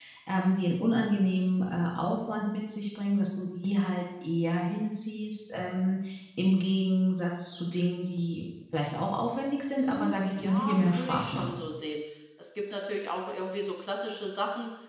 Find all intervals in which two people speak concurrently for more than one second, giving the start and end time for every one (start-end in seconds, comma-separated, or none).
9.8-11.6